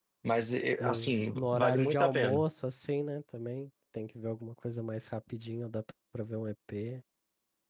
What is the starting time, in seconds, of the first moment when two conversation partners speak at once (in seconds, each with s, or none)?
0.8 s